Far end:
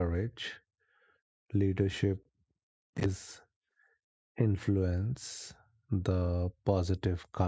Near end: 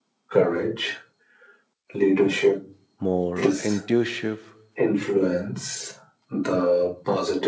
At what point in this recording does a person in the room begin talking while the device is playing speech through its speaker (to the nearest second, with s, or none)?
3 s